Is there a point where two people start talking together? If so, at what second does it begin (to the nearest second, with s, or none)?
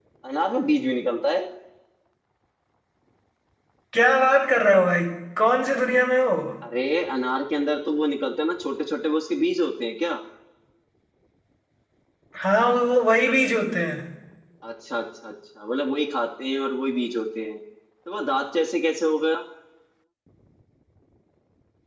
none